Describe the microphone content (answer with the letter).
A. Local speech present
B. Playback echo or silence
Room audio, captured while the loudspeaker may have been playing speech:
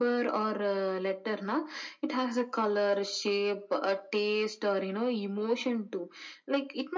B